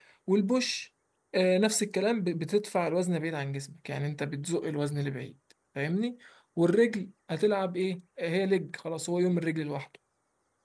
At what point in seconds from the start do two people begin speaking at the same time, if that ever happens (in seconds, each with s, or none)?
none